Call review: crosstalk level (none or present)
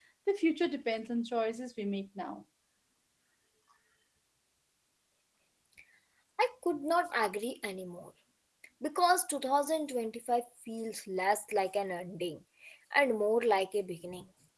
none